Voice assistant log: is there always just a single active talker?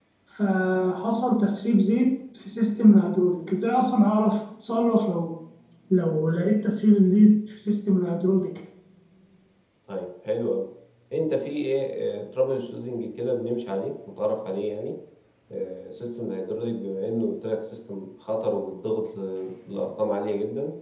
Yes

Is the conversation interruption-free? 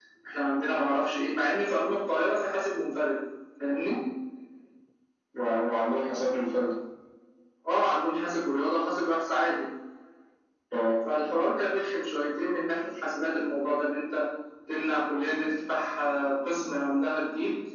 Yes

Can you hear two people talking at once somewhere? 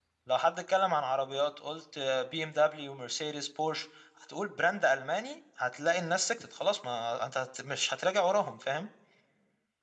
No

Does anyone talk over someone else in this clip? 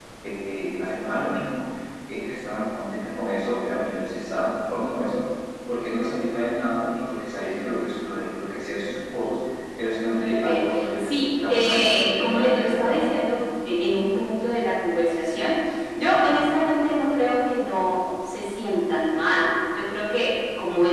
Yes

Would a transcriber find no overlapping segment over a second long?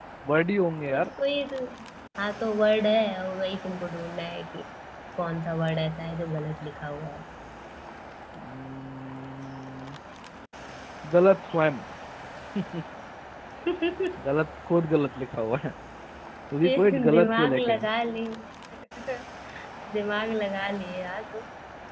No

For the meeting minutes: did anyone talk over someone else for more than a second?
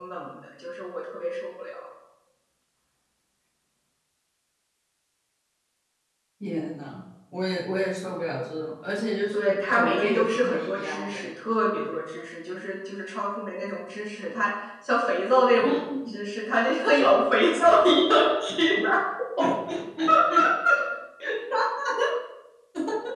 Yes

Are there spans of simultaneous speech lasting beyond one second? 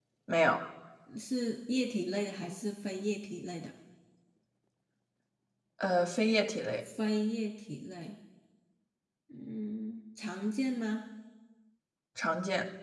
No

